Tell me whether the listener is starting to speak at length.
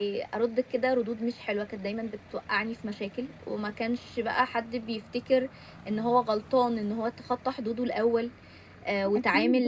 Yes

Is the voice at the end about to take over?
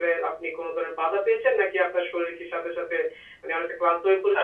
Yes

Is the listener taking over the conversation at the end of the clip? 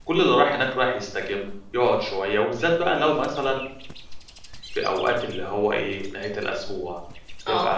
Yes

